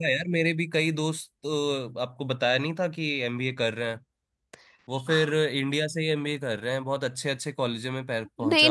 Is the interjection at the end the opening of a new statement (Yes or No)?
Yes